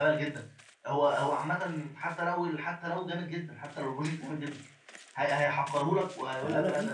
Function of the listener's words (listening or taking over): taking over